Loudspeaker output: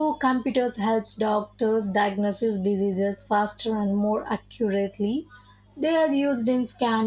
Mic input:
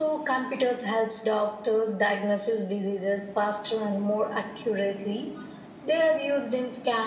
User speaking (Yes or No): No